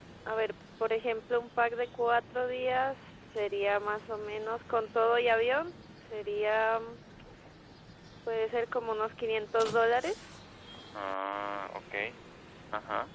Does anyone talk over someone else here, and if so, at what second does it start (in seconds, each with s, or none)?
none